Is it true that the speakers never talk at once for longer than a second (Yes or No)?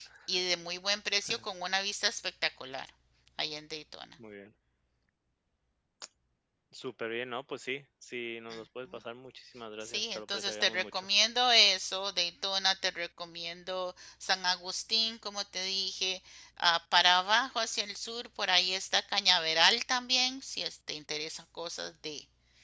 No